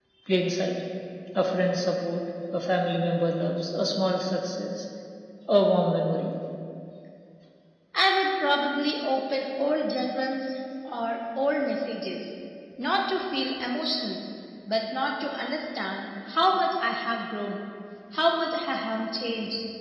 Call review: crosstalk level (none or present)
none